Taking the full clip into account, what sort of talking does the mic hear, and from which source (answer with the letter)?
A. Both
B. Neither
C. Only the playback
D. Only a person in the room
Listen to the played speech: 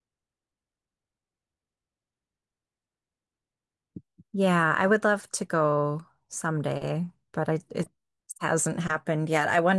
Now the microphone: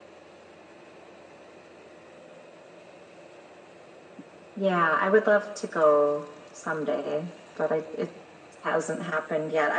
C